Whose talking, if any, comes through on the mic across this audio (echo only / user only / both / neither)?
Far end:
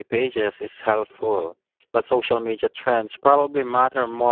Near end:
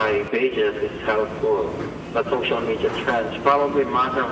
echo only